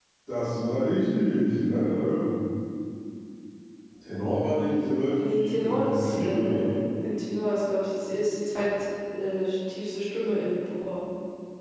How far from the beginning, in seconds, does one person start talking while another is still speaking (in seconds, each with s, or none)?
4.4 s